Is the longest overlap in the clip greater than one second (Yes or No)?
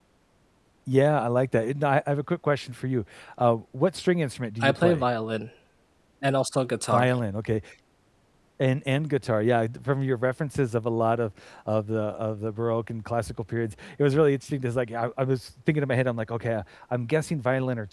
No